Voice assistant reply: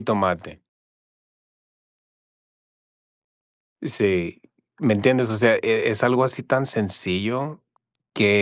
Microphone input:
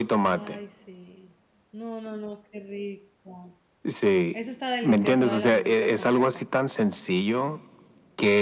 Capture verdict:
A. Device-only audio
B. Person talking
B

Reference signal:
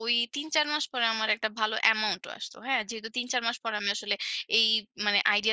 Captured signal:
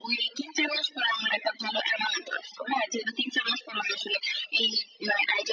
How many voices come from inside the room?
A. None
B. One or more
A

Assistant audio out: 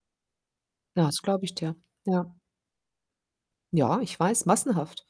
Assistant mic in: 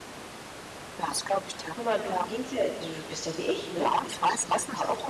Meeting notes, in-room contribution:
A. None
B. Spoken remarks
B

